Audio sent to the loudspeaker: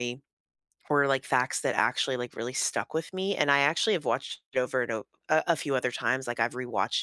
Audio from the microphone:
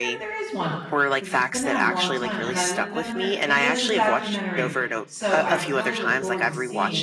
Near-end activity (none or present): present